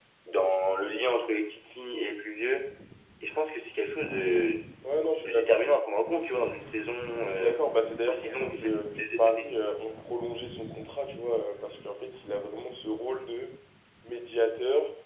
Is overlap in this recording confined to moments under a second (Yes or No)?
No